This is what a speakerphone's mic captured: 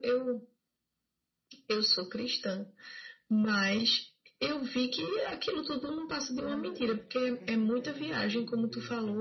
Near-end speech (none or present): present